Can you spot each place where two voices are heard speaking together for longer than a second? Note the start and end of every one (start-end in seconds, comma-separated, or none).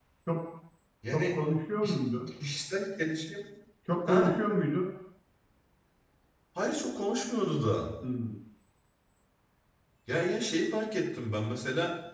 none